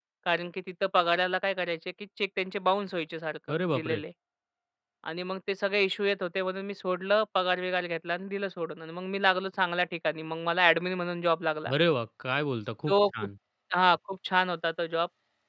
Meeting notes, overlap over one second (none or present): none